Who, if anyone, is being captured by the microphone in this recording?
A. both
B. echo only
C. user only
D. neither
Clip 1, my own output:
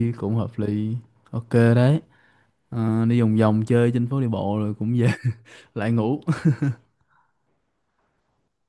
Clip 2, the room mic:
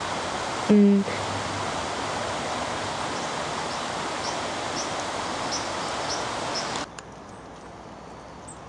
C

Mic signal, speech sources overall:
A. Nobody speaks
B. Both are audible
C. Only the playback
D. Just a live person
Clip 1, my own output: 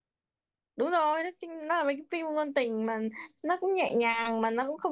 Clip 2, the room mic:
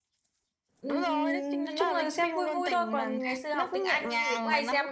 B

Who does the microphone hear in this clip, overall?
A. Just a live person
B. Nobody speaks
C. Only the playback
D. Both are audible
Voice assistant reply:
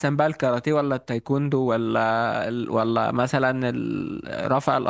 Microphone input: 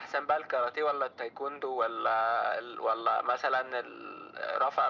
C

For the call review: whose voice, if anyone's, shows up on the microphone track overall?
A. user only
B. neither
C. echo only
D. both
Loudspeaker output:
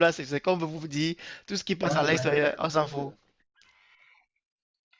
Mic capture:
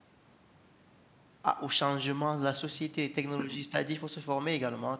A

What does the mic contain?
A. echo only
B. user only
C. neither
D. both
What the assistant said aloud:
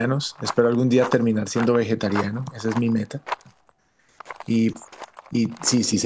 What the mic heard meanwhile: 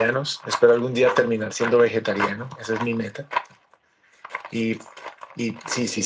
A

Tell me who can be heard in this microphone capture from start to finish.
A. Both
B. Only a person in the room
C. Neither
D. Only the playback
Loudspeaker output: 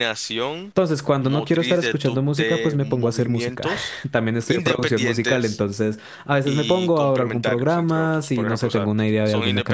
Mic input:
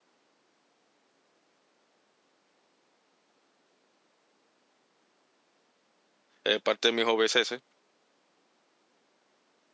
B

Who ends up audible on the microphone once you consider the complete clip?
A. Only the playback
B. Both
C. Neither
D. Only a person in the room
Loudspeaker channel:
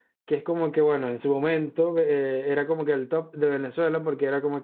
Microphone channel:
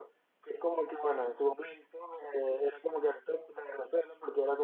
A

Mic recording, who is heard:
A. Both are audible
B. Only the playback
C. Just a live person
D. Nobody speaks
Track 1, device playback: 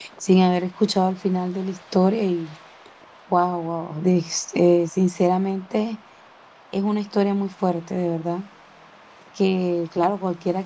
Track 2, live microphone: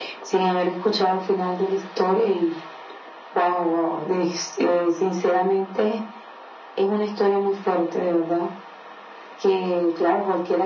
B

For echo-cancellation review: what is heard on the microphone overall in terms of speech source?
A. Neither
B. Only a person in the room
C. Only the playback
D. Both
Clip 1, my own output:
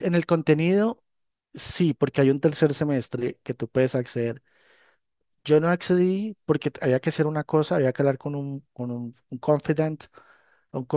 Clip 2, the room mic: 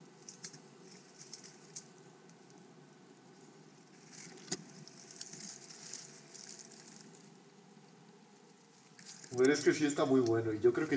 B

